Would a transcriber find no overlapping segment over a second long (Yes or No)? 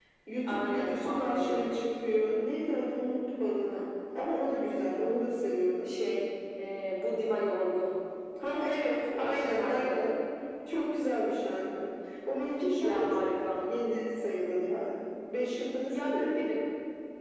No